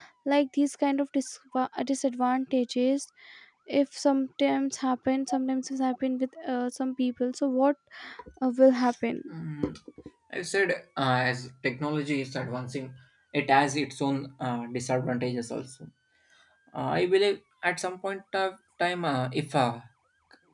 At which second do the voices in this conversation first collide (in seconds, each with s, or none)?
none